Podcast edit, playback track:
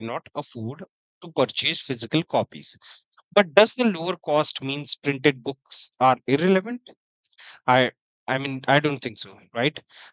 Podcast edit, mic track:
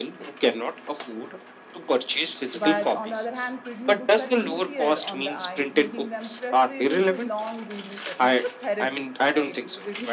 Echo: present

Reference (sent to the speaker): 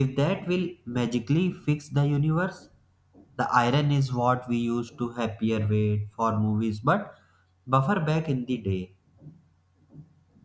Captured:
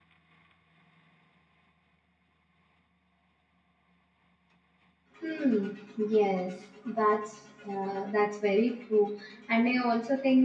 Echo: none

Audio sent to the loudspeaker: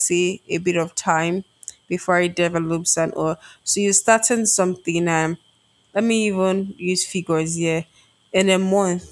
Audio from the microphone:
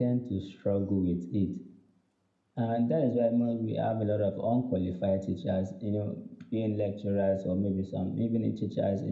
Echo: none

